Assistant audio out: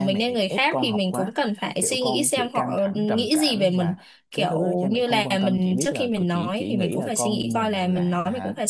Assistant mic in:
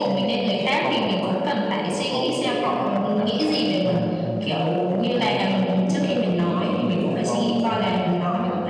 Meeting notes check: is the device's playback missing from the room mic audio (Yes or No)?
No